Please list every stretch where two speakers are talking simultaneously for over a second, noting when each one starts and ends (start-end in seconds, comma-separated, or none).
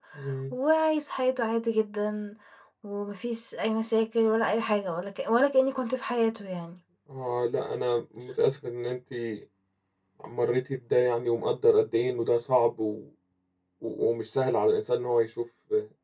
none